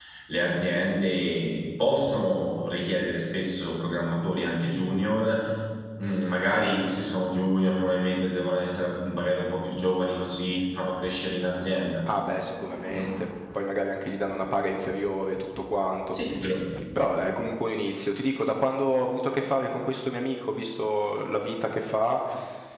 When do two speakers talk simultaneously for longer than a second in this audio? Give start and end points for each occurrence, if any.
none

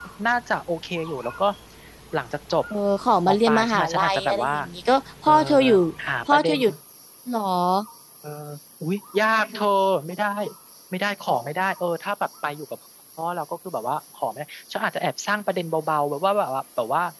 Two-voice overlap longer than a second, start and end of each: 3.3-4.5

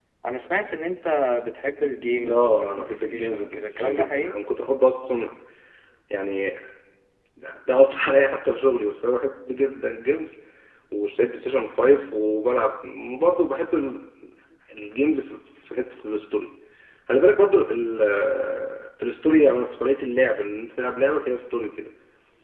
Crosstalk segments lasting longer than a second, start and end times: 2.3-4.3

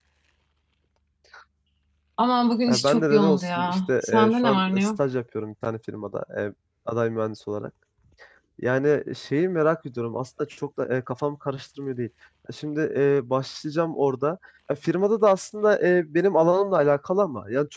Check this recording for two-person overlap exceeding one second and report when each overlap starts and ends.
2.7-4.9

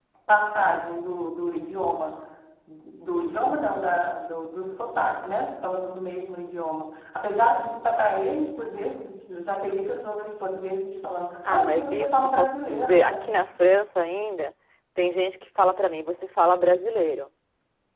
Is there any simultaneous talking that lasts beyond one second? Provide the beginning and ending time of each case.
11.5-13.3

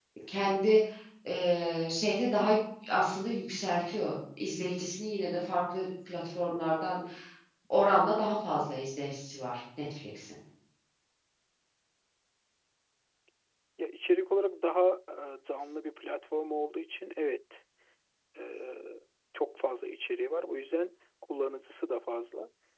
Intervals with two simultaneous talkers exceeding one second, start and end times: none

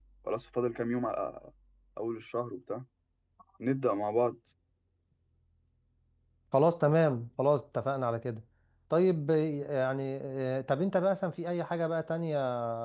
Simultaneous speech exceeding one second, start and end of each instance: none

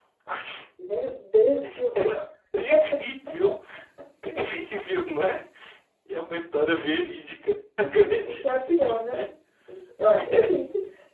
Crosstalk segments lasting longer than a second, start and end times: 7.8-9.2

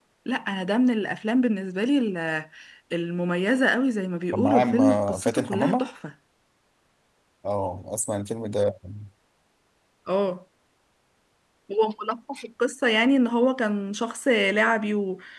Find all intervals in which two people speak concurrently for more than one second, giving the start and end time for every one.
4.3-5.9

